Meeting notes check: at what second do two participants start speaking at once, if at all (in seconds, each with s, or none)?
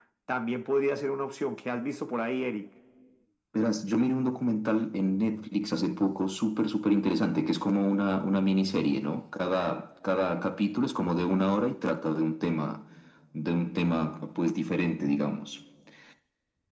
none